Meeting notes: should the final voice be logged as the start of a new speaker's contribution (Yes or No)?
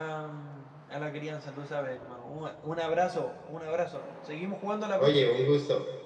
Yes